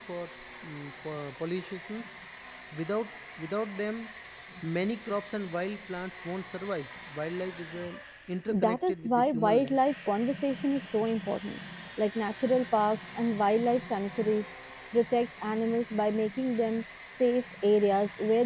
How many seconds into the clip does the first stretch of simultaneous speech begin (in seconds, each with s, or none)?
8.5 s